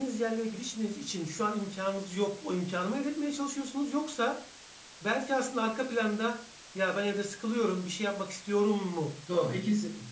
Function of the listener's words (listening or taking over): taking over